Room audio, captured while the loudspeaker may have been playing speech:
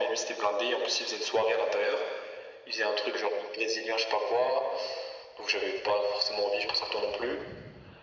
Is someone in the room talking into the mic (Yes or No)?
No